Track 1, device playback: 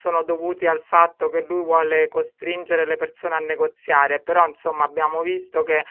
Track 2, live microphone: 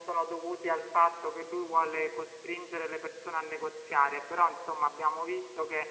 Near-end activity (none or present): none